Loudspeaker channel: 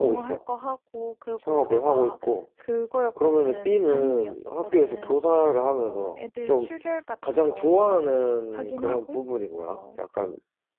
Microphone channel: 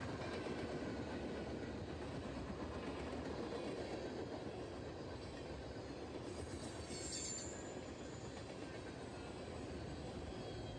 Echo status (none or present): none